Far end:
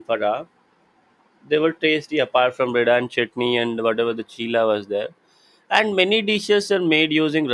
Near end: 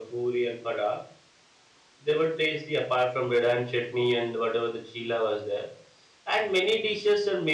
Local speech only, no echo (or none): none